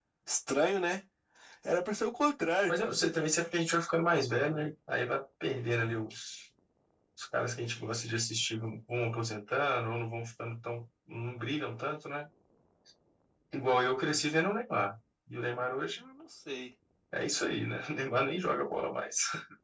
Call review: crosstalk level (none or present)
none